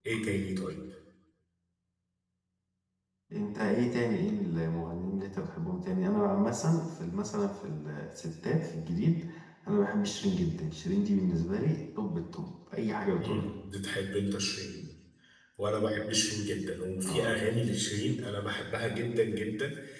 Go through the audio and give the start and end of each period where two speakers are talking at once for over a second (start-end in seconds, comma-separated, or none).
none